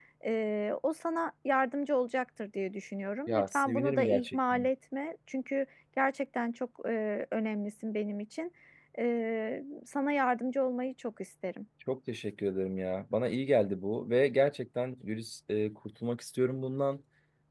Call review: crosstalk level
present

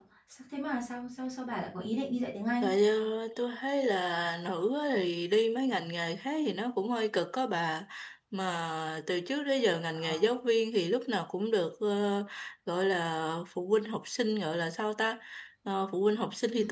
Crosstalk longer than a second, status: none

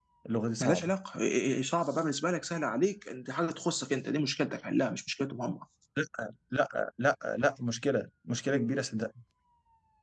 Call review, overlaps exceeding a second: none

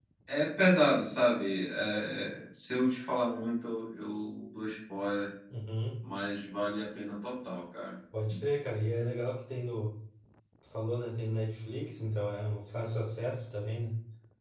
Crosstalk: none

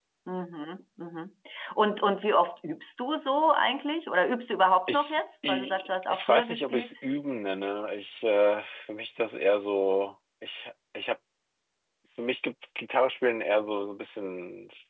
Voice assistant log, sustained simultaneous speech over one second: present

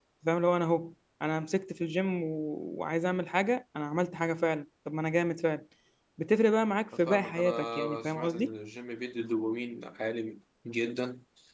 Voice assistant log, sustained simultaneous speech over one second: present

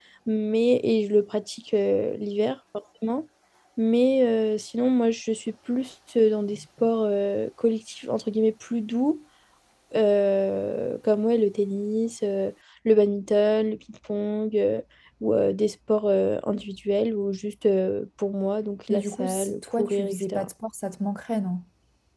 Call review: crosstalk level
present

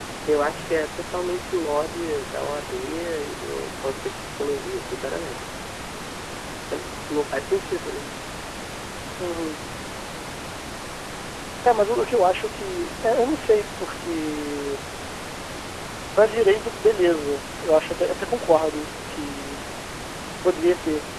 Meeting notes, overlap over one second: none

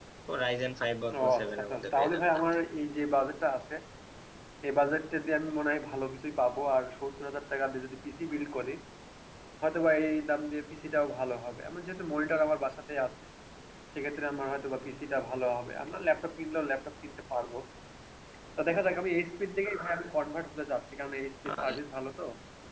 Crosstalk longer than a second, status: present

